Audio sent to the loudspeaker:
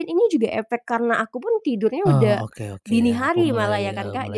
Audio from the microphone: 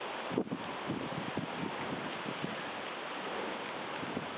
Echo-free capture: Yes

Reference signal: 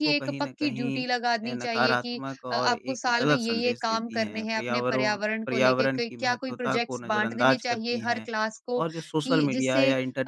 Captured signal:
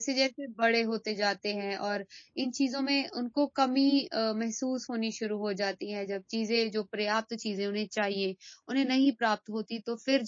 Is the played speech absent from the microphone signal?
Yes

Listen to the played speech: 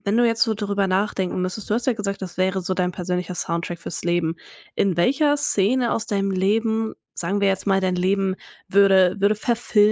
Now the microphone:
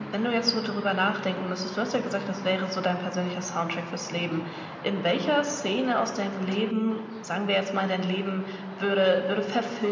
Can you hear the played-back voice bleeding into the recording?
Yes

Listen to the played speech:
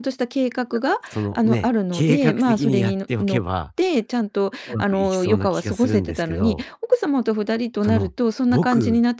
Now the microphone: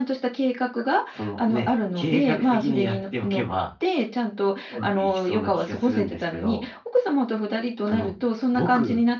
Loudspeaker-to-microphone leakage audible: Yes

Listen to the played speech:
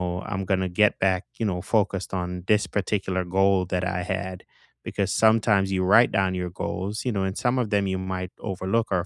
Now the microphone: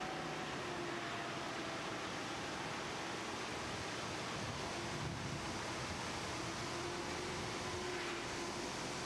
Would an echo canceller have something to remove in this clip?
No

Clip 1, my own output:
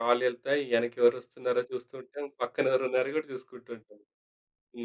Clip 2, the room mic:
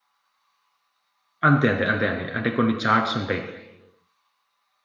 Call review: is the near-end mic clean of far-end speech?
Yes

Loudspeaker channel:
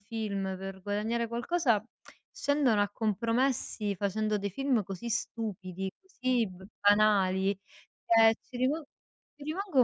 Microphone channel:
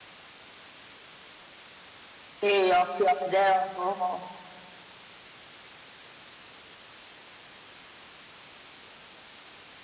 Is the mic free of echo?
Yes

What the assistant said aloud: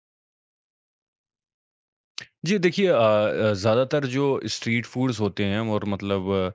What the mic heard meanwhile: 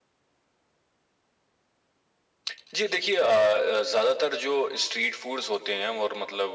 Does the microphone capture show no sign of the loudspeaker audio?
No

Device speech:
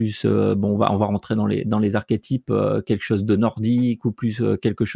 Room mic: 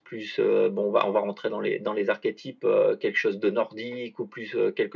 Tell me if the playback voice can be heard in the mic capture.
Yes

